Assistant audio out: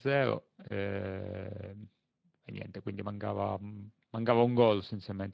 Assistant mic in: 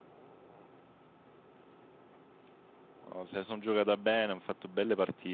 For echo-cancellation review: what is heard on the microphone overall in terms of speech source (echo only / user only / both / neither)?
user only